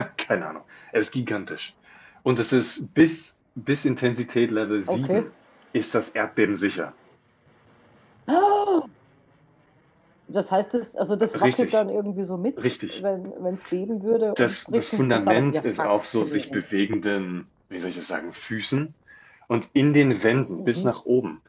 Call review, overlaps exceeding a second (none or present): present